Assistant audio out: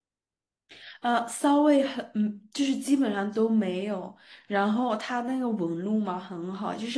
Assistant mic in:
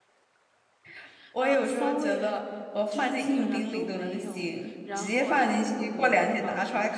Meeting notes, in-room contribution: present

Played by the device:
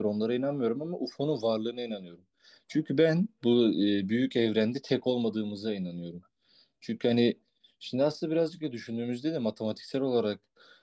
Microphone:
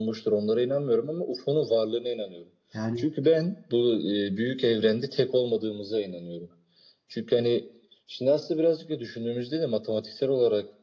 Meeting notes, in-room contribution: present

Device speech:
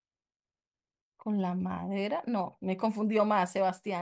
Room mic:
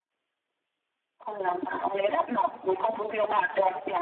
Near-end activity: none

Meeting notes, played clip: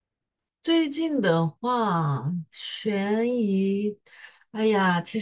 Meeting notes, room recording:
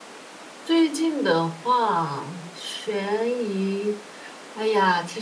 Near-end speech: none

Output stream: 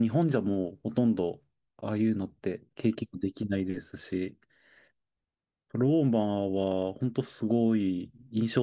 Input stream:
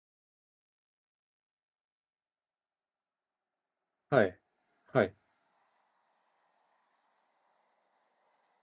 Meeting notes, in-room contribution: present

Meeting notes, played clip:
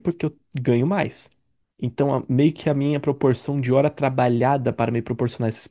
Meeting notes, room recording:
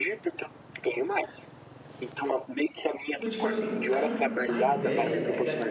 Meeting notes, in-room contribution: present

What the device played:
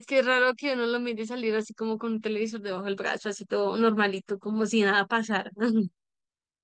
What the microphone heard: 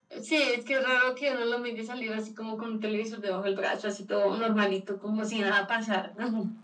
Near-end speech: none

